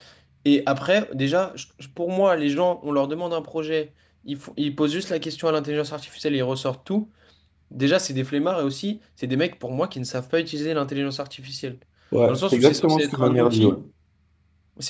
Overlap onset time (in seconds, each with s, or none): 12.3 s